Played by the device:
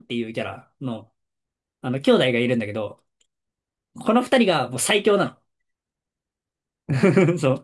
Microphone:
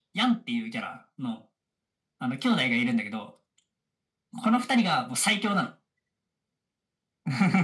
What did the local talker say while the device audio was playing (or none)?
none